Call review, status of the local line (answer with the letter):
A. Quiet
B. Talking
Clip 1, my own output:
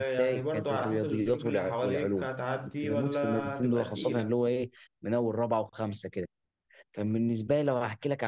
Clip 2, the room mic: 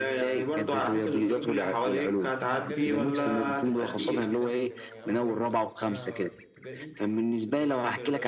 B